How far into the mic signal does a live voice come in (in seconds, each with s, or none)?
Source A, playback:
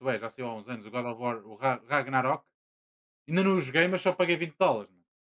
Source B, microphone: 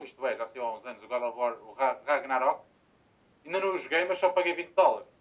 none